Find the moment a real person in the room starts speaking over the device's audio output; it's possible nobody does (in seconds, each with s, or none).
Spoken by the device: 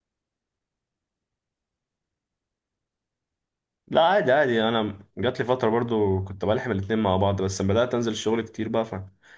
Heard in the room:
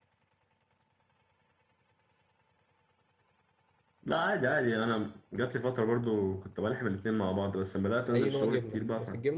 7.9 s